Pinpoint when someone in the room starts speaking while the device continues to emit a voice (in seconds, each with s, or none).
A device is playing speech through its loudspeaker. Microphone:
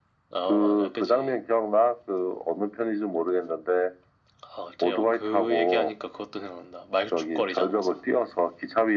none